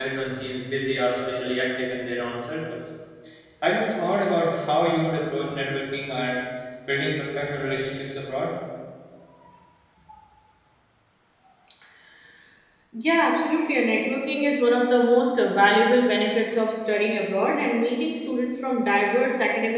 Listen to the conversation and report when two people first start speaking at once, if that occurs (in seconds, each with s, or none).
none